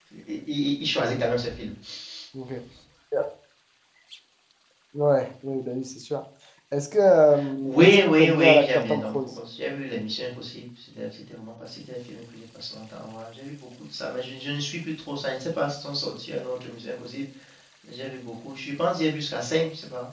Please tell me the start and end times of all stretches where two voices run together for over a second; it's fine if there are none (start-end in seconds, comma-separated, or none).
7.6-9.1